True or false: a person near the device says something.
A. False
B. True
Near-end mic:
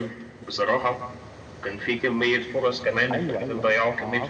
B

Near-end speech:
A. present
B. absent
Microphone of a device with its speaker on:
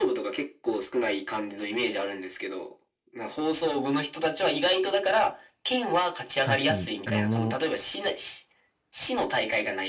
A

